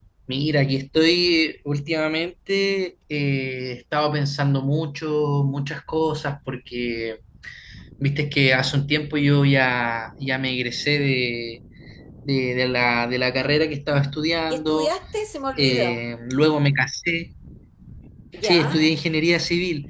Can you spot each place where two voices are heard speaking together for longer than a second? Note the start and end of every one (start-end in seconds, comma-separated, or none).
none